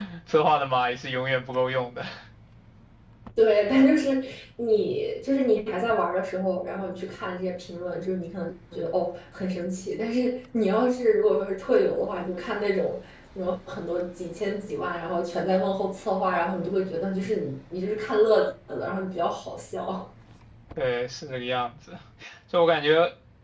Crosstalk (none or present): none